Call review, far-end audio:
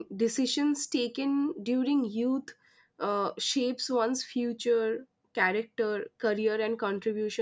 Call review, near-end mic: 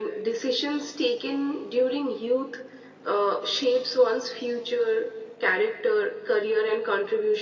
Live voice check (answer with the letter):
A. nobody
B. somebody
A